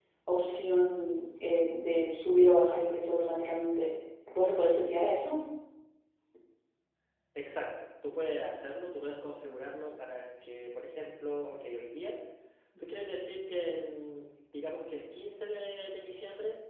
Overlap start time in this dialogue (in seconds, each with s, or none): none